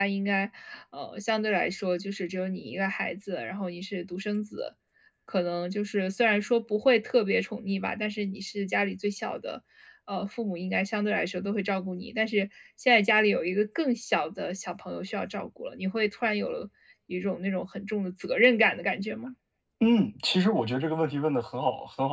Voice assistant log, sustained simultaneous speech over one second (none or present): none